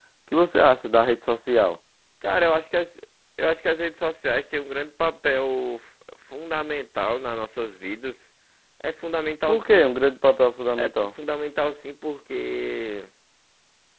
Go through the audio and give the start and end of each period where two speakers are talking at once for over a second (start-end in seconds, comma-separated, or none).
none